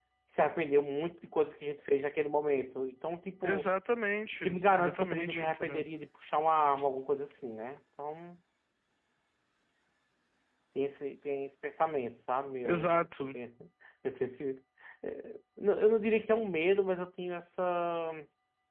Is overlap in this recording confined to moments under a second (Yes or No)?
No